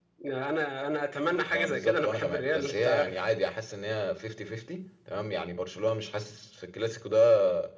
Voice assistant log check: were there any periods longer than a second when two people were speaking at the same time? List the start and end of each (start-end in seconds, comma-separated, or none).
1.3-3.1